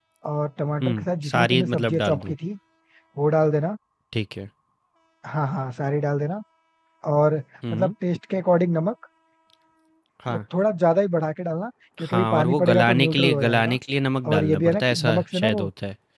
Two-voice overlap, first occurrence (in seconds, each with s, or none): 0.8 s